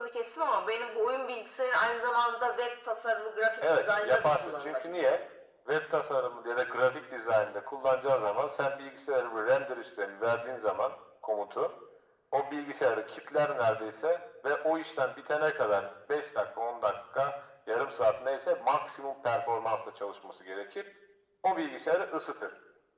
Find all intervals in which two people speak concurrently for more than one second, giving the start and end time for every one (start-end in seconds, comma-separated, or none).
3.6-5.2